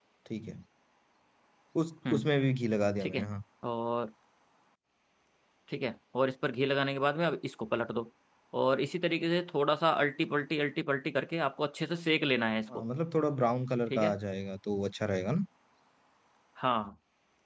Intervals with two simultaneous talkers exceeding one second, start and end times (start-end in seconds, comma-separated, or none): none